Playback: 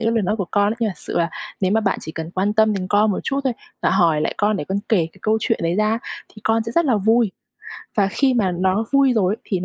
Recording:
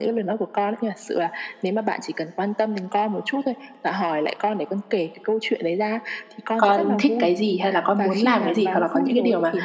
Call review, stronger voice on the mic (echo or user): user